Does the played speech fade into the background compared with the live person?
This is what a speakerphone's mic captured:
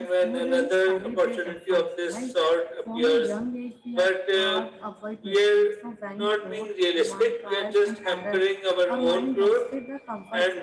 No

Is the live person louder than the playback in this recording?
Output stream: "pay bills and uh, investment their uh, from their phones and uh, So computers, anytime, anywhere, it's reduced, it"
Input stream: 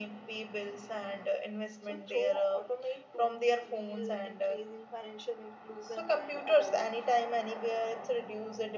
No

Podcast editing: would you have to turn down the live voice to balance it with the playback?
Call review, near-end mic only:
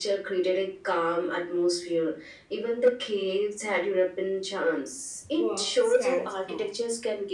No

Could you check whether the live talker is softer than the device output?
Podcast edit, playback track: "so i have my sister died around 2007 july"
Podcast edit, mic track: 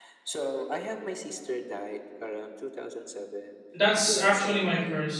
No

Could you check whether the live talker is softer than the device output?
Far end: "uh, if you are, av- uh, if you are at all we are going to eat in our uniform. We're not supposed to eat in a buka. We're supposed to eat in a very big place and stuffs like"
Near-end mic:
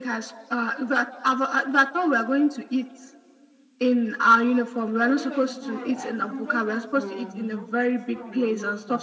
Yes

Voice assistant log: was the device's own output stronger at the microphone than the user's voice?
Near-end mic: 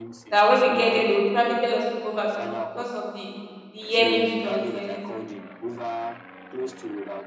No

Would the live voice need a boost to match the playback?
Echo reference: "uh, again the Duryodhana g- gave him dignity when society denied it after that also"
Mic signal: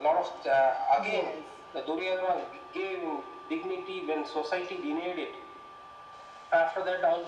Yes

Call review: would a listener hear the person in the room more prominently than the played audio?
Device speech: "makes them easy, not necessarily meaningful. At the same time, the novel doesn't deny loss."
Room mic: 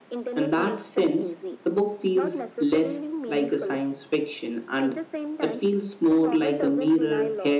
Yes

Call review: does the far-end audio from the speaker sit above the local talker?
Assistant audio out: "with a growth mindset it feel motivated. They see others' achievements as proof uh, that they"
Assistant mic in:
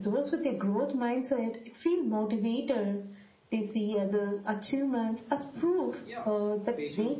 Yes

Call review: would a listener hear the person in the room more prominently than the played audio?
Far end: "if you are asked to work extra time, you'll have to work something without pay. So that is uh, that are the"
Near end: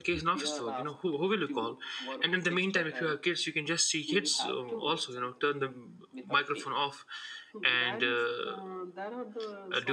Yes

